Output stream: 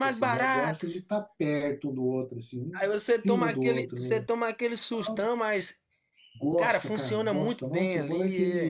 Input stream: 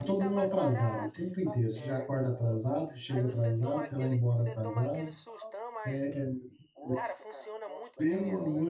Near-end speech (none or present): present